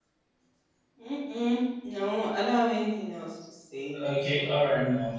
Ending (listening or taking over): taking over